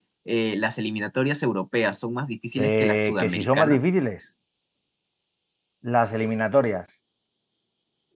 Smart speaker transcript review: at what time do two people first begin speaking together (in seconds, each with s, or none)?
2.6 s